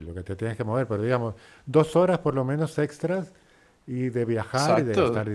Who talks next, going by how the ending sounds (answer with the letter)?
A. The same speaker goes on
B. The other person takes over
B